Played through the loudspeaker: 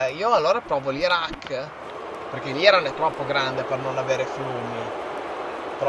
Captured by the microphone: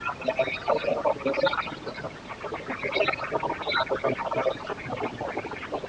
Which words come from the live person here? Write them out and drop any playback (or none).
none